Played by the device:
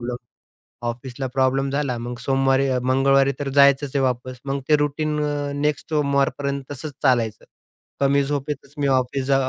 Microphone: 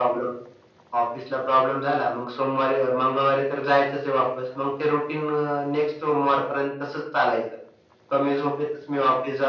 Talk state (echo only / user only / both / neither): echo only